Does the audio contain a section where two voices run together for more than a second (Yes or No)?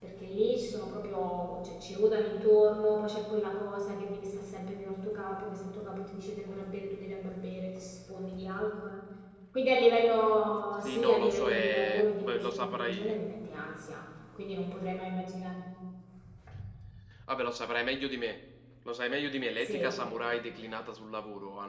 Yes